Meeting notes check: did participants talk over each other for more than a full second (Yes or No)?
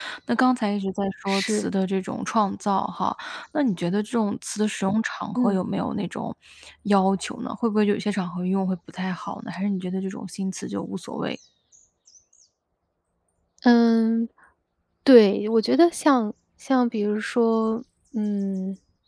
No